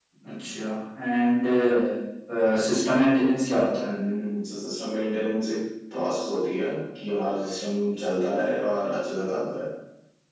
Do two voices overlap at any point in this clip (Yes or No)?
No